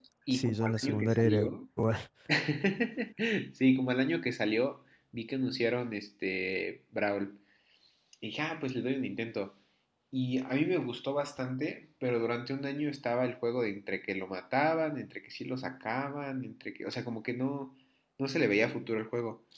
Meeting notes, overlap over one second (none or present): present